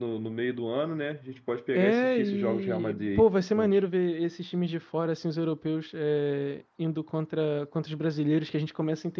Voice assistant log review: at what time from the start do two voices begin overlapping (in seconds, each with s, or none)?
1.7 s